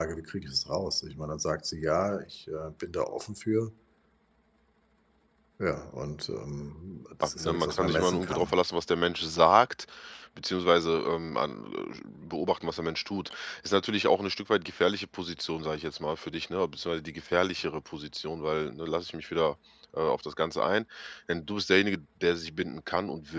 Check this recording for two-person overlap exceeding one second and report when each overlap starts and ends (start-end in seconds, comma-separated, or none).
7.2-8.6